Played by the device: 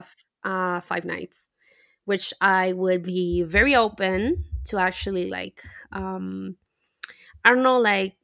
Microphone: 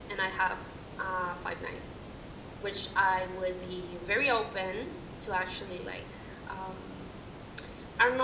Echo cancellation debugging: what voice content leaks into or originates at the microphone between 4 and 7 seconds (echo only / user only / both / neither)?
echo only